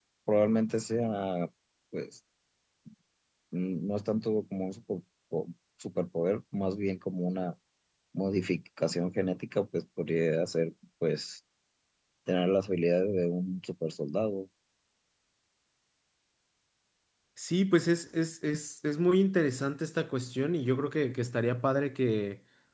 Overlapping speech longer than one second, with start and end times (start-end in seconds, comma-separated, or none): none